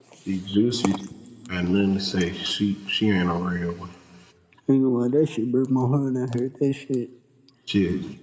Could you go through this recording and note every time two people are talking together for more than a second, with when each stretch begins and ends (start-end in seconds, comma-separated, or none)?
none